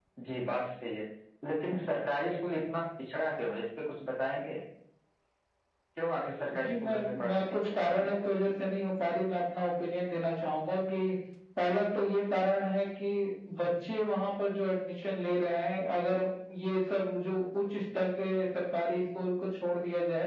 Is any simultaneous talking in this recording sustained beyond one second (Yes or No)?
Yes